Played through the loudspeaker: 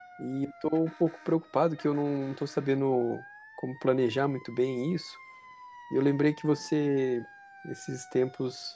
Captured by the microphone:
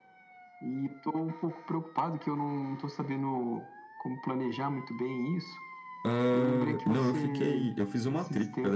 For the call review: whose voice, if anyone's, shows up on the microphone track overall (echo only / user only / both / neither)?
both